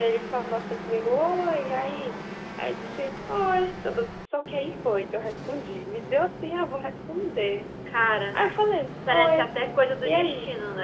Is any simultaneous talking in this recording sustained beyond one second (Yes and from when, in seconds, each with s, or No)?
No